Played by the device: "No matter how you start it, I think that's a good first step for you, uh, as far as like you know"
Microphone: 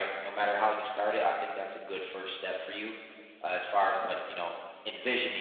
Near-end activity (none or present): none